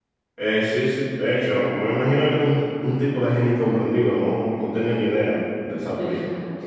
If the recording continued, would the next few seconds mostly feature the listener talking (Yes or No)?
Yes